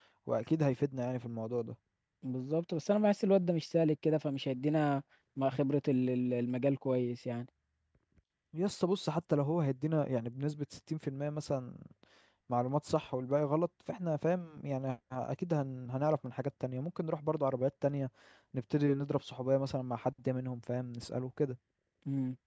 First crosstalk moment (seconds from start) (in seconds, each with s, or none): none